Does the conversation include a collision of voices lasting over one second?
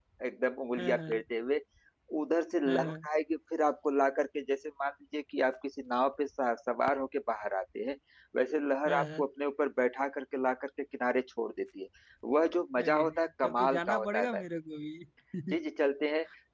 Yes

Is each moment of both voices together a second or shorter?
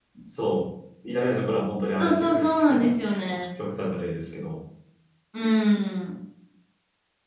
No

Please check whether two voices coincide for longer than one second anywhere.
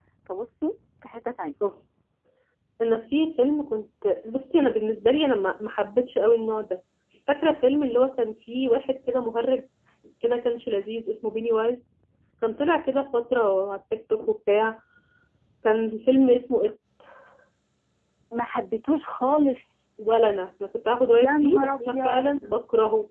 Yes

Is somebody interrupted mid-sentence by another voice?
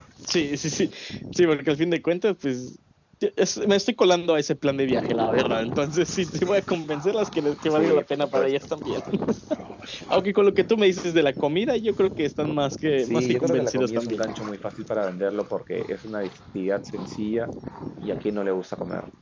Yes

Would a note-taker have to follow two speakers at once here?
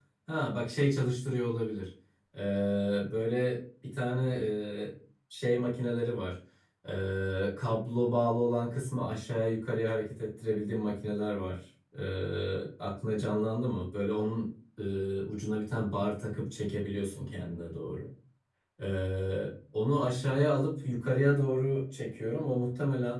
No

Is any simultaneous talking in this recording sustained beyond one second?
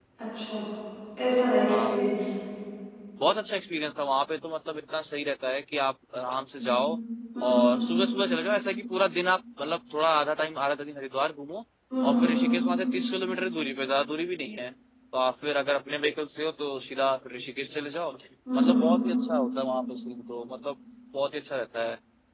No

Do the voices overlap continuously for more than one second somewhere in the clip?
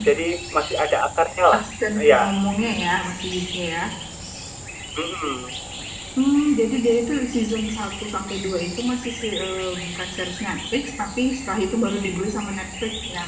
No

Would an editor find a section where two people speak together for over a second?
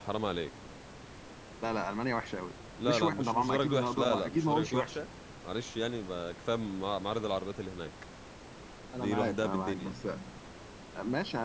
Yes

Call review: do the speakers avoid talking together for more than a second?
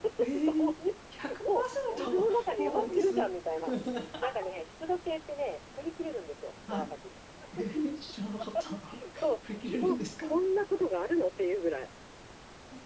No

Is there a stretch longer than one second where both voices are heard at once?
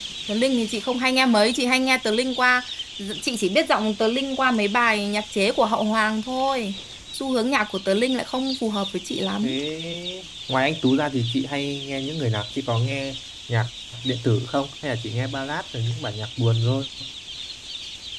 No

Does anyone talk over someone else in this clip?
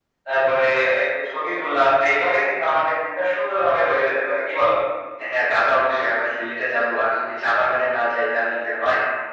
No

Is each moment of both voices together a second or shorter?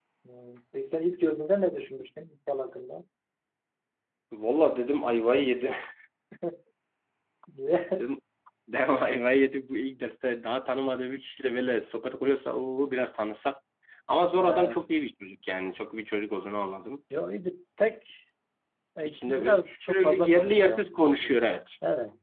No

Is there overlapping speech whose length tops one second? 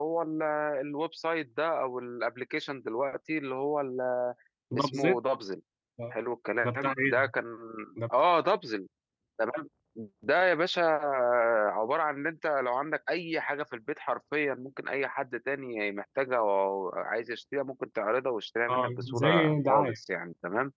Yes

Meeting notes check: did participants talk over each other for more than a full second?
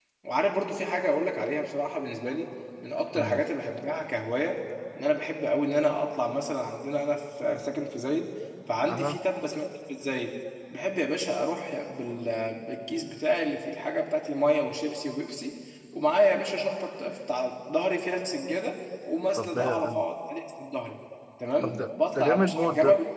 Yes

